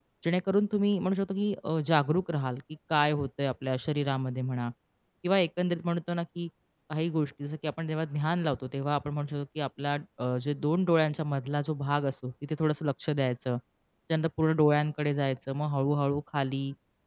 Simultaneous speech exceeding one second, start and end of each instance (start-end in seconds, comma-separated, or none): none